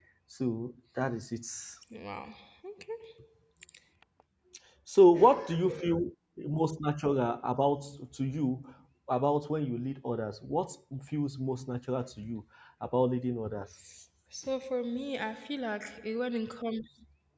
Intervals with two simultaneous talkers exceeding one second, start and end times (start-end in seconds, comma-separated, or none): none